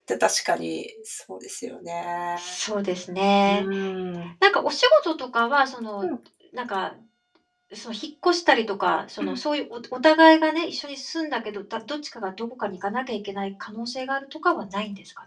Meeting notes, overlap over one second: none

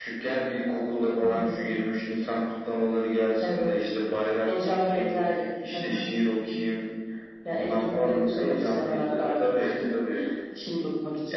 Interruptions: present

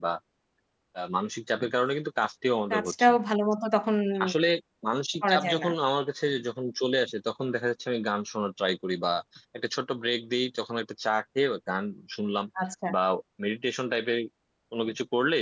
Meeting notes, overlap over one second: none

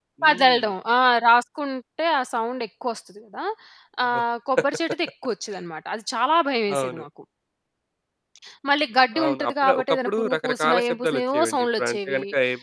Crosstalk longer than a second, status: present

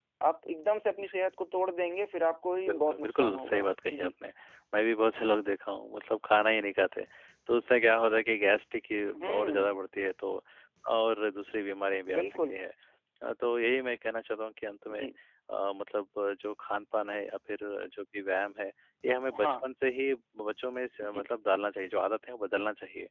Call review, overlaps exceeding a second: present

